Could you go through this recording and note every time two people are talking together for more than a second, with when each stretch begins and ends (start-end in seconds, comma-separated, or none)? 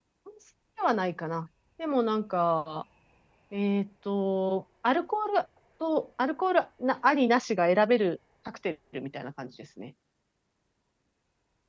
none